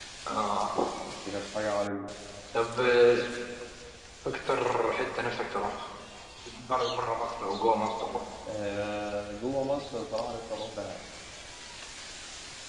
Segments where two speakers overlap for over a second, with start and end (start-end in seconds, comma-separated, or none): none